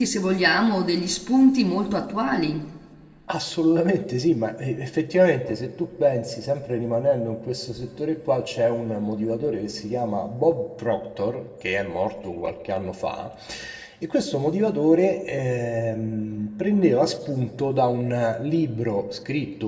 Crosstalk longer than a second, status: none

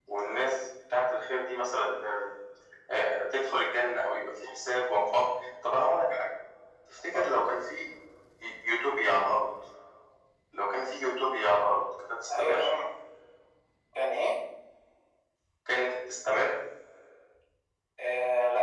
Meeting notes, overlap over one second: none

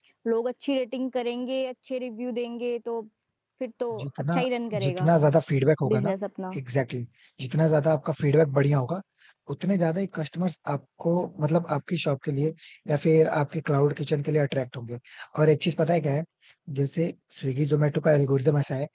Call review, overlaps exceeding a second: none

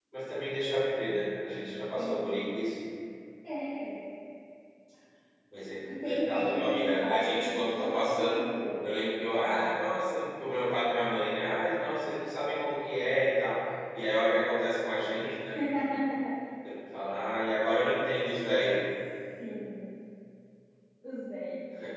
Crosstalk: present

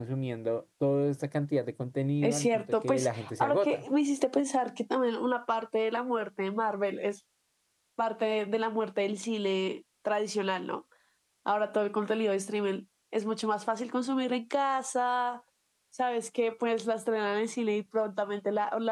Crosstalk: present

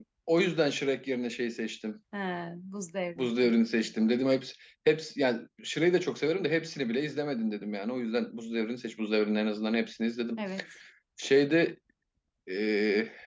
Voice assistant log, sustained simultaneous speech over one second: none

